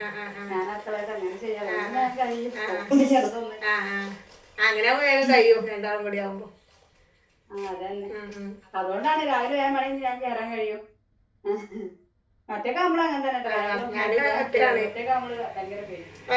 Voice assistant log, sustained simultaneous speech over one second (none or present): present